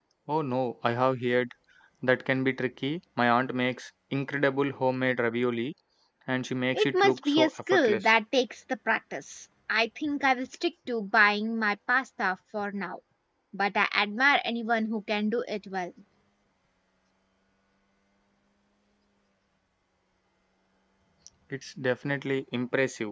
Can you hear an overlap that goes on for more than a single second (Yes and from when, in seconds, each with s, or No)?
Yes, from 6.7 s